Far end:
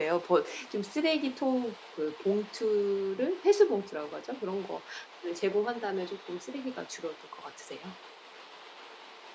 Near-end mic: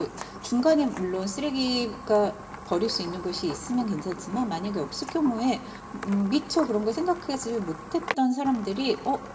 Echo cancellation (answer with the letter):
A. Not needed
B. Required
A